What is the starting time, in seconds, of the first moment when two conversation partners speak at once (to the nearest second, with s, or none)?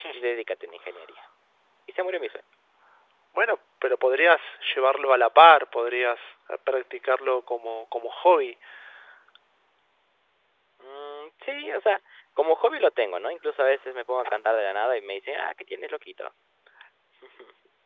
none